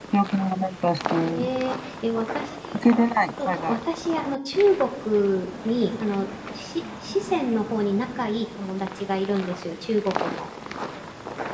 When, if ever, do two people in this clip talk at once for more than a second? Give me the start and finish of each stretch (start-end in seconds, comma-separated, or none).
none